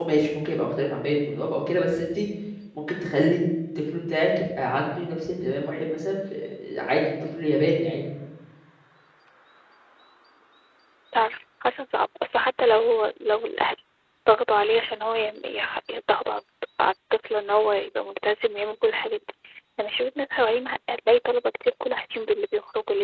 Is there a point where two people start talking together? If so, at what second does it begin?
none

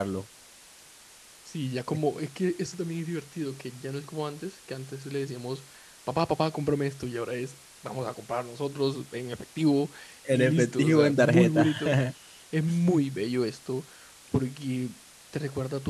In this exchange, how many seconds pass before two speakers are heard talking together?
10 s

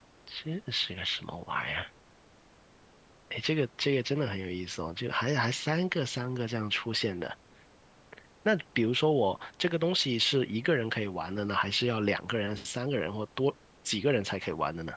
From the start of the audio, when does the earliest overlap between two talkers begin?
none

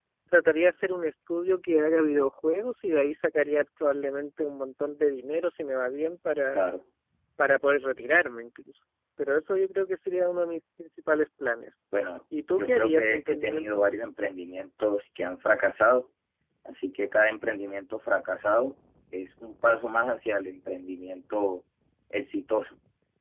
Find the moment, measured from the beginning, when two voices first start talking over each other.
13 s

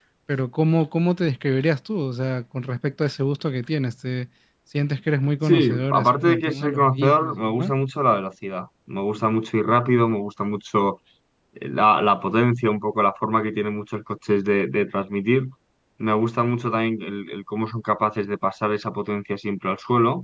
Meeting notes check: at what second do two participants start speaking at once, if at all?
5 s

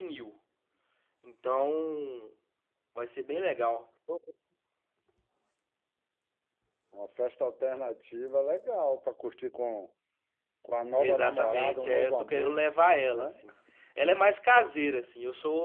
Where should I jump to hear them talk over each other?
11 s

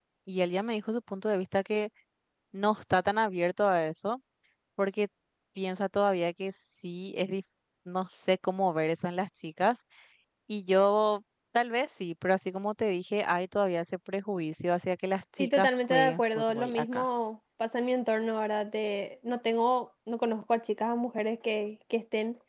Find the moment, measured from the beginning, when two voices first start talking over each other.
15 s

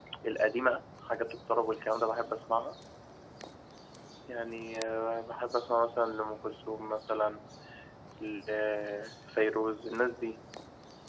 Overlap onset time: none

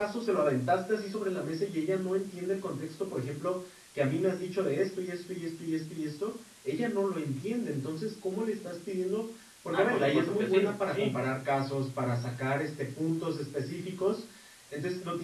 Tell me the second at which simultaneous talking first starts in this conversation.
10 s

